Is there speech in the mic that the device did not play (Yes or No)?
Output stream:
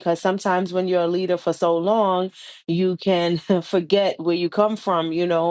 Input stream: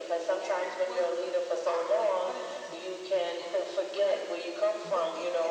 Yes